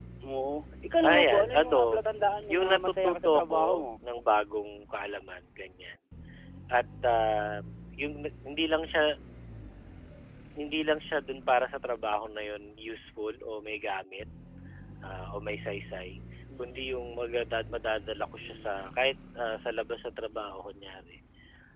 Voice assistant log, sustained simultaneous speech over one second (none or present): present